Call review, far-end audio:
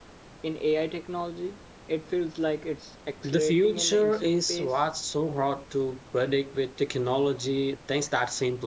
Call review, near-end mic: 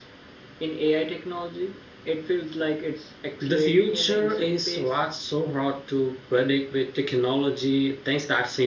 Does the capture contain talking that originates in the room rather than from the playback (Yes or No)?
No